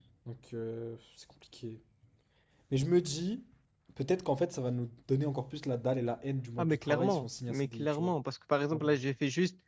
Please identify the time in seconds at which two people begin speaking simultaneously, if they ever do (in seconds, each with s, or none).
6.6 s